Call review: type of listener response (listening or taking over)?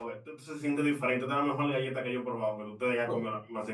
taking over